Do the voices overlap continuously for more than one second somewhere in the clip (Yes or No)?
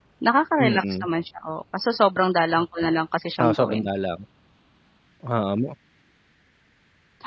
No